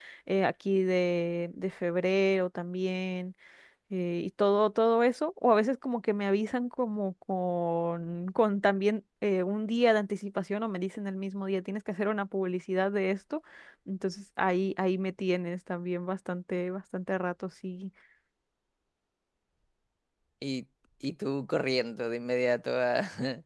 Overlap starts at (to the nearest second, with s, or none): none